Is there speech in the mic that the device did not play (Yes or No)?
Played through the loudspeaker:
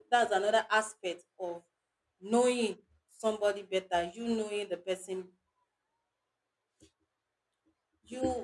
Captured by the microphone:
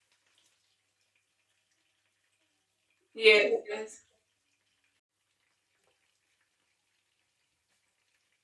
Yes